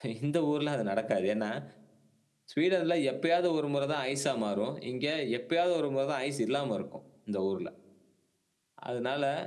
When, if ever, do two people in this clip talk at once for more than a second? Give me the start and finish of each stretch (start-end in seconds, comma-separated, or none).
none